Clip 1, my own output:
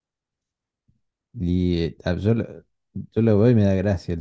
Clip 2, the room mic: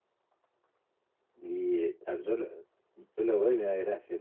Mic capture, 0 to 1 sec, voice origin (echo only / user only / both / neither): neither